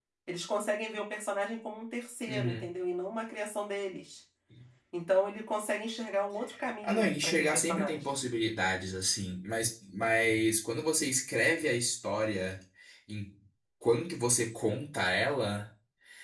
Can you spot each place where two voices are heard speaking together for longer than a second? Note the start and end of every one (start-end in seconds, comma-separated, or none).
6.8-8.1